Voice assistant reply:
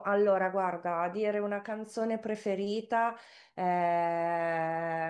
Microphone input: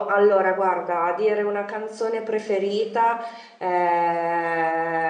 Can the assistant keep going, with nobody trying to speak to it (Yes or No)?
Yes